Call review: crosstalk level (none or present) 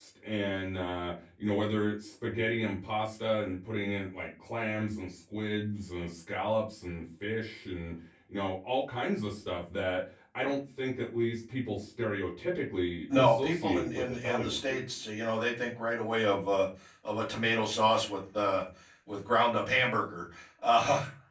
present